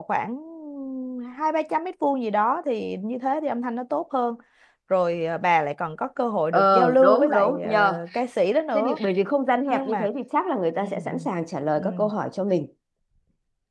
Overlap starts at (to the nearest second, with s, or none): 7 s